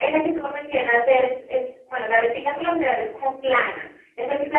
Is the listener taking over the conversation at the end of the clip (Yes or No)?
No